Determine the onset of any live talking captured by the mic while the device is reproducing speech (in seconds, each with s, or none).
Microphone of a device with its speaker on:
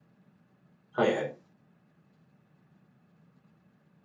0.9 s